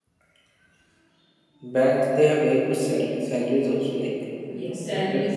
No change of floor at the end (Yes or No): No